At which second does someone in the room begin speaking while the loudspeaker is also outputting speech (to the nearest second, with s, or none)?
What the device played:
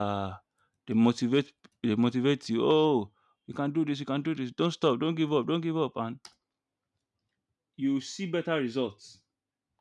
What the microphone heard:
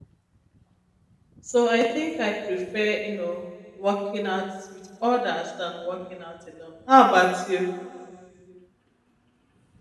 1 s